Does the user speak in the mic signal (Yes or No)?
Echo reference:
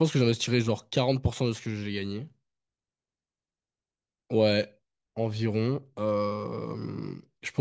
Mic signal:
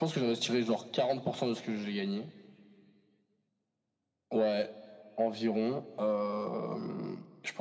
No